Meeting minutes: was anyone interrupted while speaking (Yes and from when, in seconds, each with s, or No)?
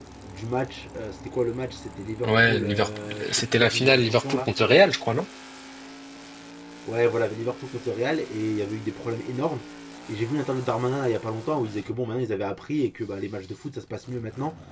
Yes, from 2.2 s